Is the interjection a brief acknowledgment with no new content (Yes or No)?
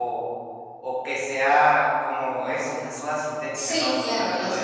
No